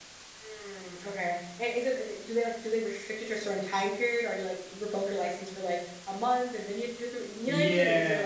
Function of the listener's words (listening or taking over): taking over